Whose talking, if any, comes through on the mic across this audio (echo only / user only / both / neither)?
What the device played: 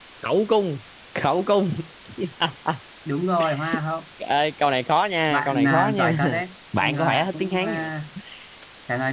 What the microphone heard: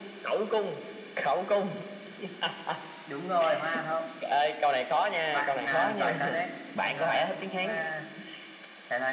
echo only